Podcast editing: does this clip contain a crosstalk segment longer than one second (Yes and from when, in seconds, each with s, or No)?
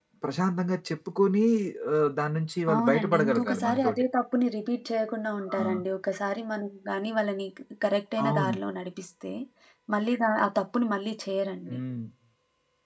Yes, from 2.7 s